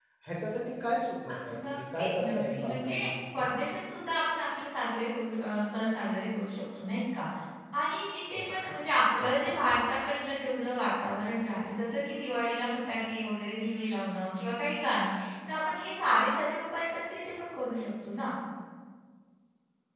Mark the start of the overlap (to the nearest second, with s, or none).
1 s